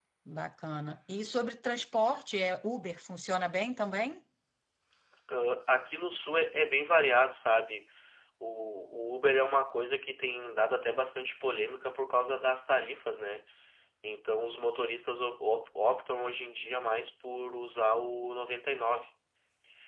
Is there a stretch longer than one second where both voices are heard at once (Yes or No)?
No